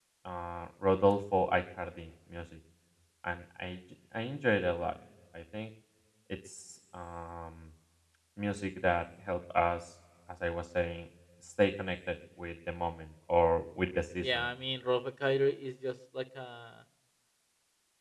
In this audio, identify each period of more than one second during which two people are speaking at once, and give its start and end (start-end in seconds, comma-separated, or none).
none